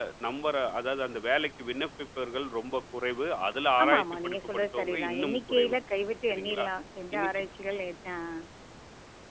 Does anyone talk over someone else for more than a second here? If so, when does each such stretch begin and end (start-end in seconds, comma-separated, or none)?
3.8-5.7